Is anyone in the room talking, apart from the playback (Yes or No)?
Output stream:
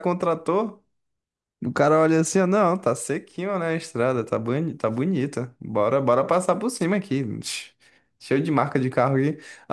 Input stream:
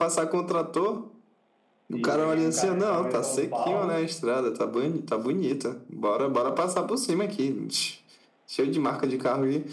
Yes